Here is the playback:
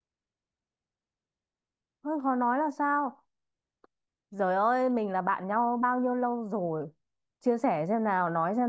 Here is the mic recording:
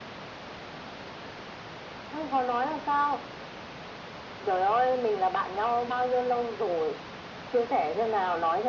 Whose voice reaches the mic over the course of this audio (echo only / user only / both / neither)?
echo only